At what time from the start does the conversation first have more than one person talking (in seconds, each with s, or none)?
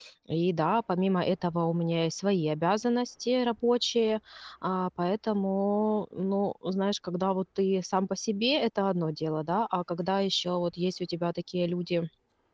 none